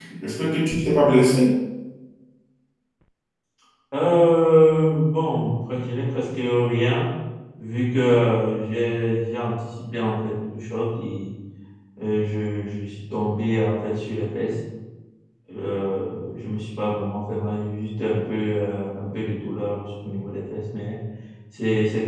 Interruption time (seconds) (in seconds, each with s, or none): none